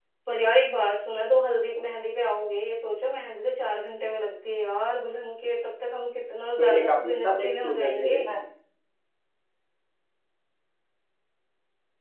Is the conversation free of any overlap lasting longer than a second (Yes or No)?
No